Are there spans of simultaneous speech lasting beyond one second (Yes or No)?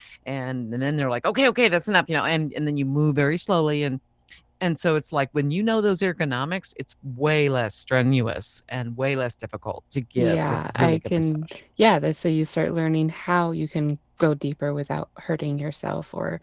Yes